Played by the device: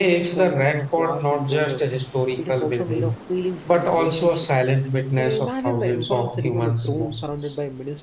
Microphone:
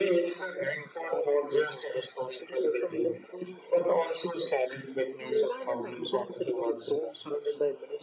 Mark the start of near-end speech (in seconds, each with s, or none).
none